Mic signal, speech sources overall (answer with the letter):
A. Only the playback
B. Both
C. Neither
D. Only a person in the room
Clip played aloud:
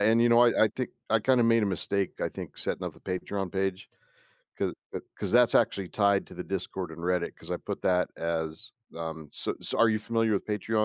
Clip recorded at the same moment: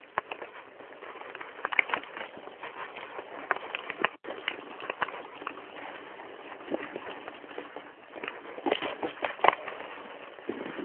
C